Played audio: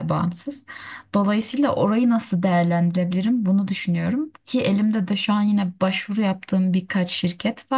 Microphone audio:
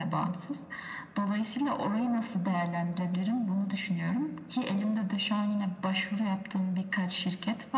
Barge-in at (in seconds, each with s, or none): none